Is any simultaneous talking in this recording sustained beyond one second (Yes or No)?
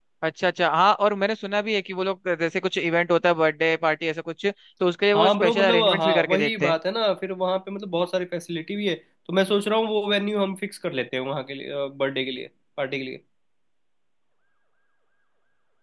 Yes